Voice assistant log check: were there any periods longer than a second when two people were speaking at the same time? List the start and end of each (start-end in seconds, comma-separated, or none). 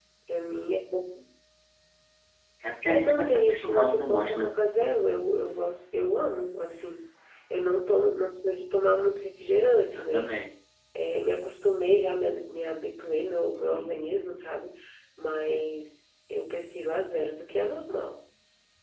2.8-4.5